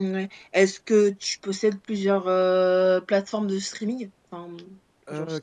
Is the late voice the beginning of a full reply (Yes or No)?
Yes